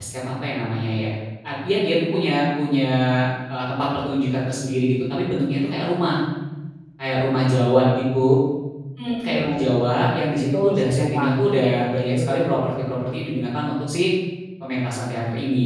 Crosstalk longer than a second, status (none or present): present